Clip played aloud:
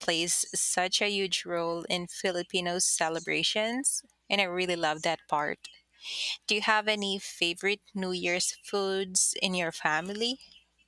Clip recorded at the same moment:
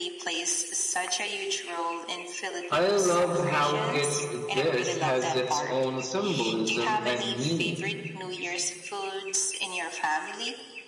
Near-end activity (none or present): present